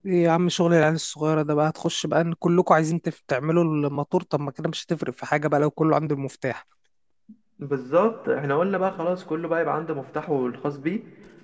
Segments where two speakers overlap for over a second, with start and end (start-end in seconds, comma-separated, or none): none